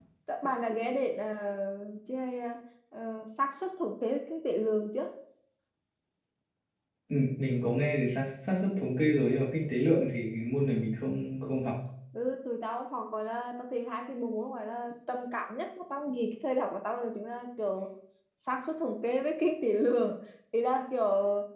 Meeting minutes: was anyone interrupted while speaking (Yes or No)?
No